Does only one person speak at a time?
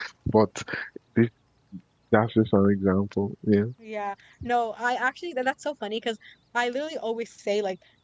Yes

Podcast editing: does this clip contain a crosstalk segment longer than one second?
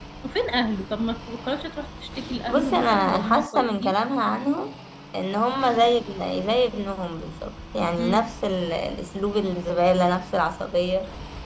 Yes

